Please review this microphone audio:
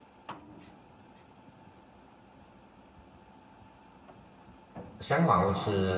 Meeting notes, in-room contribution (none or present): present